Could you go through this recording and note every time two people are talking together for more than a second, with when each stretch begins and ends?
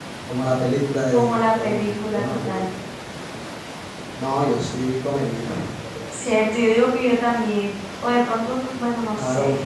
1.1-2.6

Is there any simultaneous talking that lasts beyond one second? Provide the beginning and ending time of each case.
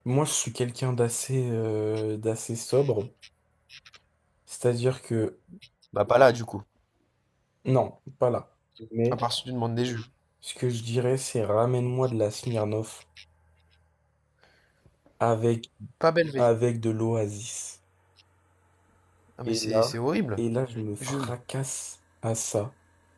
none

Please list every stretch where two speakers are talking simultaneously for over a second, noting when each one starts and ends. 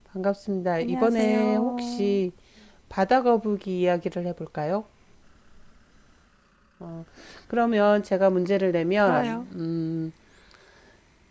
0.8-2.2

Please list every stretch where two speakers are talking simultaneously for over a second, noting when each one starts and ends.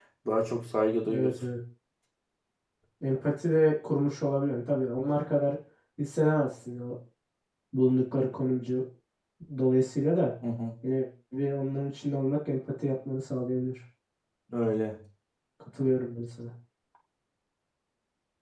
none

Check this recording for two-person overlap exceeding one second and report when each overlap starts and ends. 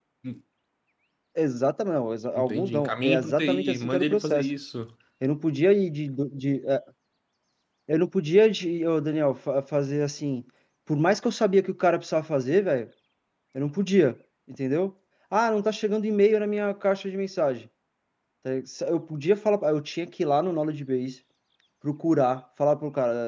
2.4-4.5

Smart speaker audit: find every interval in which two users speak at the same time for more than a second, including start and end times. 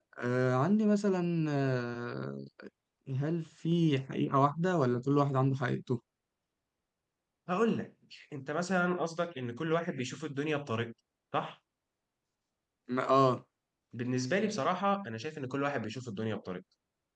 none

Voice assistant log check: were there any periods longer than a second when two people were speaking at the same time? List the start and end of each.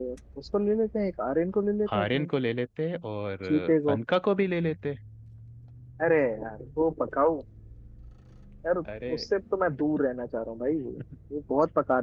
none

